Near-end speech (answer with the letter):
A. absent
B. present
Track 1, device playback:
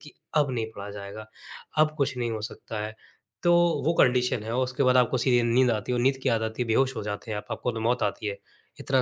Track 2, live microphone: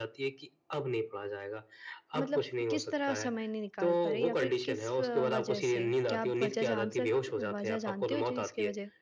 B